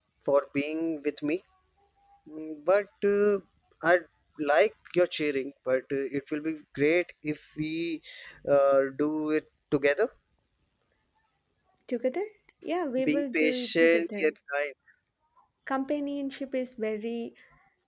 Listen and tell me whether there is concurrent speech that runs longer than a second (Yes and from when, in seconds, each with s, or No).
Yes, from 13.0 s